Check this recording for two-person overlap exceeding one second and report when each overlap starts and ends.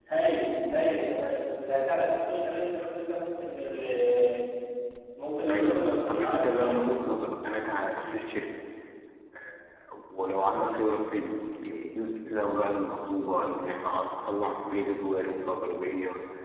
5.5-6.8

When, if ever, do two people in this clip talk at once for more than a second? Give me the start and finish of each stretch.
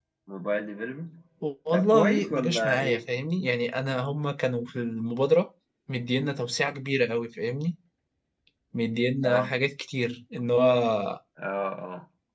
1.7-3.0

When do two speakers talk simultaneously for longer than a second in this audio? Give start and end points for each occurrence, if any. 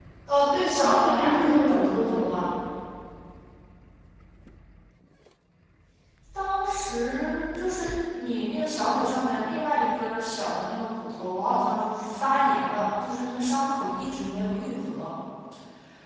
0.8-2.5

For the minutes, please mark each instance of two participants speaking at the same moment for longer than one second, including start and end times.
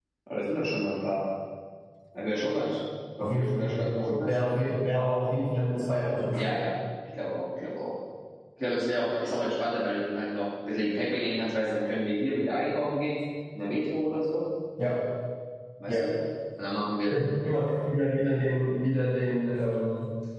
3.2-4.5

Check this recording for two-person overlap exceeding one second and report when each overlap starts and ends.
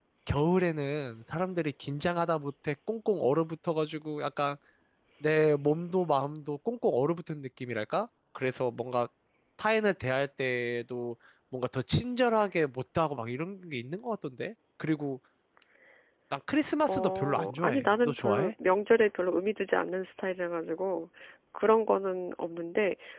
16.8-18.5

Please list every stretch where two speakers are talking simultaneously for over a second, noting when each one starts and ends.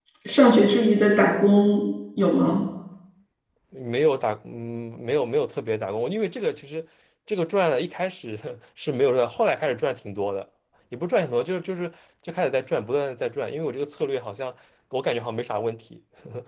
none

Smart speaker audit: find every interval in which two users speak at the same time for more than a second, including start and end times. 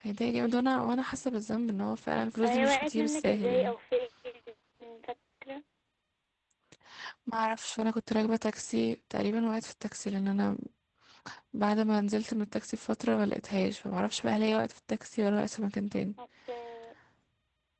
2.4-3.7

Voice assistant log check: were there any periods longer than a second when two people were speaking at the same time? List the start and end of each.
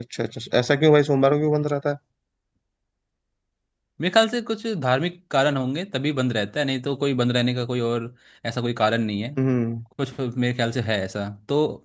none

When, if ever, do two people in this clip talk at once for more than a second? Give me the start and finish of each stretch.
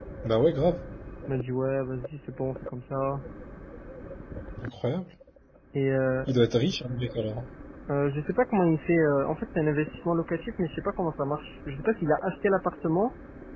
none

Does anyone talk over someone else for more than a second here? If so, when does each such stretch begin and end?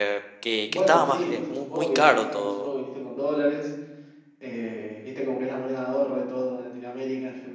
0.7-2.7

